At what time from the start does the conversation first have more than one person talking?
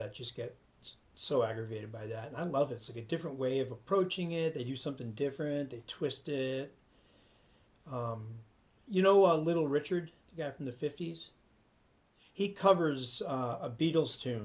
none

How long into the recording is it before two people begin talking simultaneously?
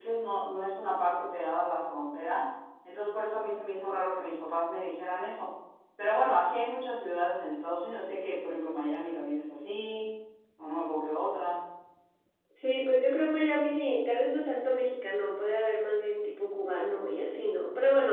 none

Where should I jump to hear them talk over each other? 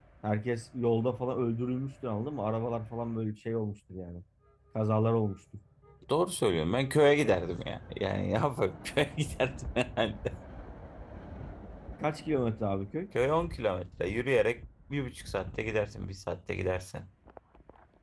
none

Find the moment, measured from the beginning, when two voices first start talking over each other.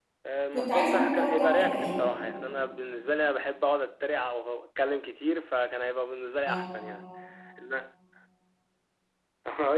1 s

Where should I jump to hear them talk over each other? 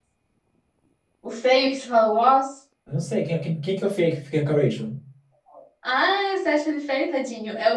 none

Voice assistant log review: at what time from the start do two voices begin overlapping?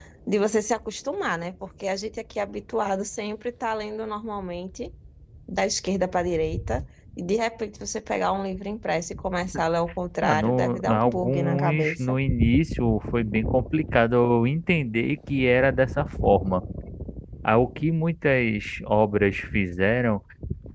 10 s

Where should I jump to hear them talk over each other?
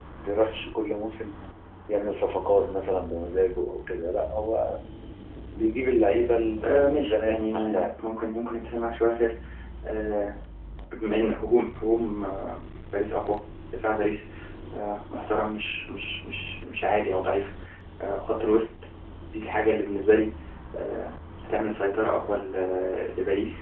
7 s

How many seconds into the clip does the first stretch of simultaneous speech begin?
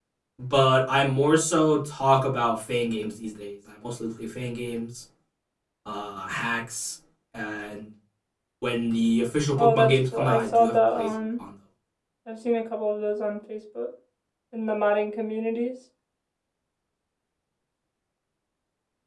10 s

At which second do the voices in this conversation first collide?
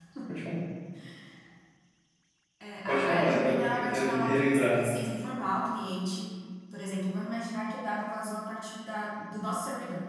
3 s

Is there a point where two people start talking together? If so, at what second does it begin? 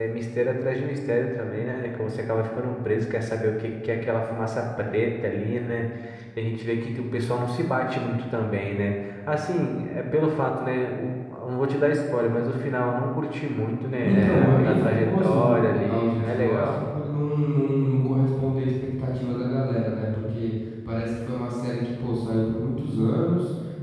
14 s

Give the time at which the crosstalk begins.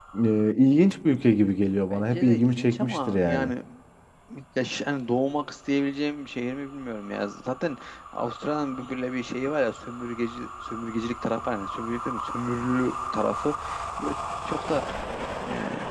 2 s

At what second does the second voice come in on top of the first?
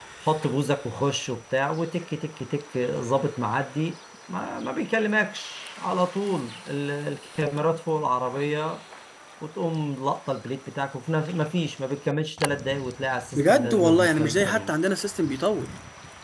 13 s

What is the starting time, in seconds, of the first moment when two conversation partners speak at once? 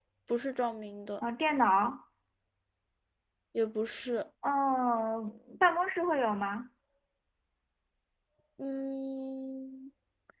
none

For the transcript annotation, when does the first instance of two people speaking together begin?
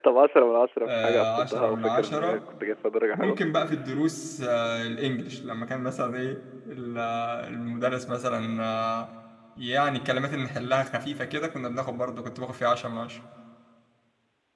1 s

